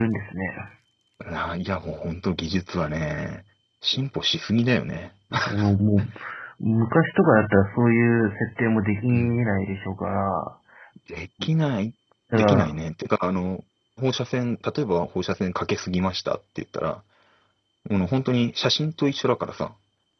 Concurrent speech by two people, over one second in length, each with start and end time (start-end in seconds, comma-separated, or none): none